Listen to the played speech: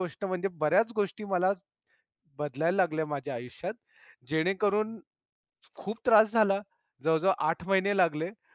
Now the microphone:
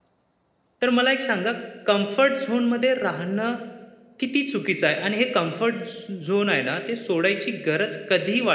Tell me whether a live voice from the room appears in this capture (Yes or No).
Yes